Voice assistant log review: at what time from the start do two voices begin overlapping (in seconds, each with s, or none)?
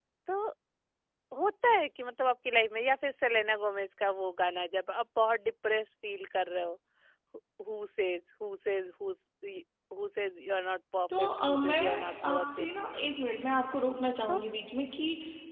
11.1 s